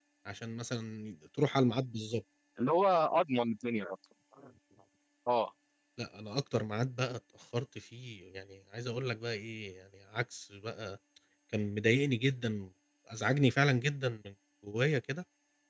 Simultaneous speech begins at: none

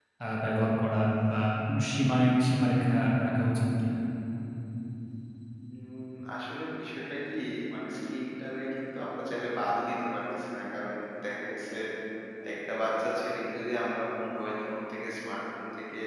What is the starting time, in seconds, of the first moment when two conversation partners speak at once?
none

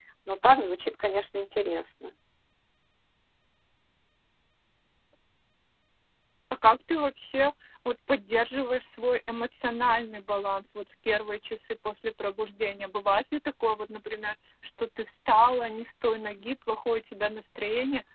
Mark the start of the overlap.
none

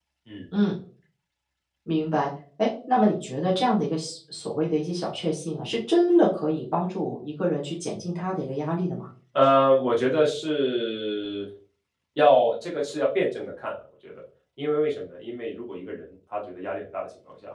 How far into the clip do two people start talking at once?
none

